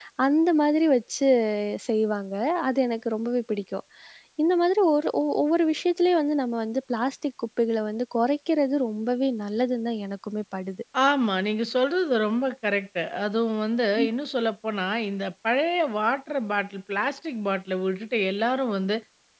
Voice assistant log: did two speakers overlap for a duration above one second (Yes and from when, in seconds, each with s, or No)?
No